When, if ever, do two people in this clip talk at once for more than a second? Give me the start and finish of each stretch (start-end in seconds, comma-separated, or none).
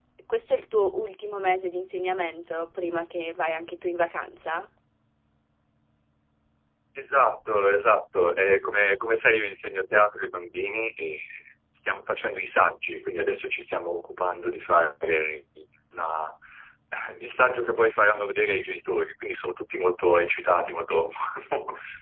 none